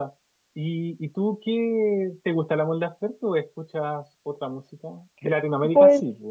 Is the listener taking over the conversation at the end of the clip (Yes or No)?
Yes